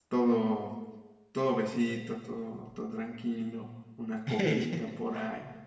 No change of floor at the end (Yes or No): Yes